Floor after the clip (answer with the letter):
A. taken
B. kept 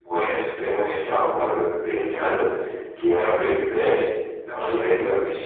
B